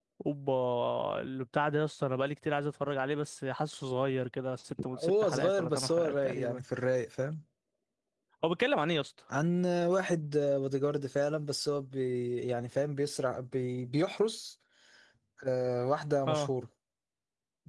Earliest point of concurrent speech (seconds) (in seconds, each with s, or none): 5.0 s